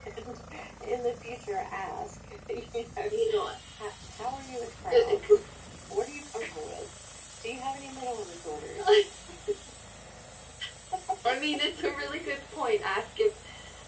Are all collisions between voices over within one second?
Yes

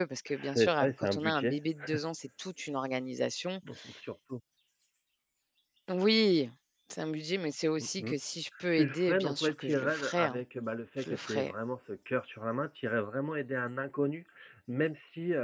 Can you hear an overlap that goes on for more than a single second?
Yes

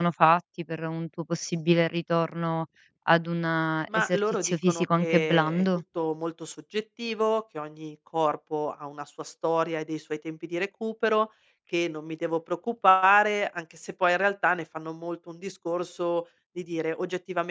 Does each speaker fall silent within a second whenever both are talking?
No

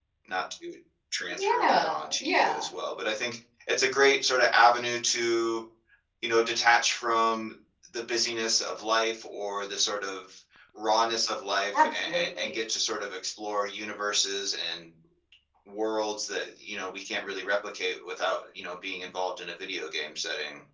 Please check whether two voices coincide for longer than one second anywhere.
Yes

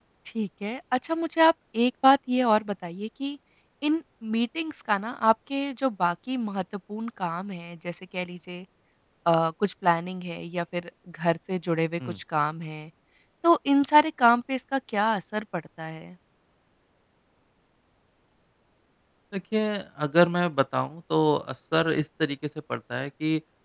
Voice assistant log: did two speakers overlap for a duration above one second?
No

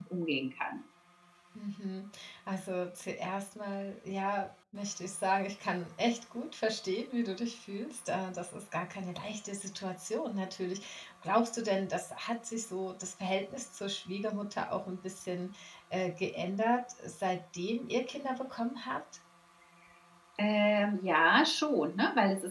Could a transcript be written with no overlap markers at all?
Yes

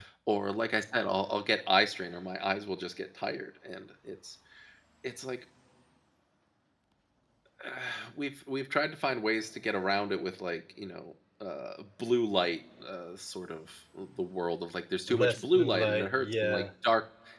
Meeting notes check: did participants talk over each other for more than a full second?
Yes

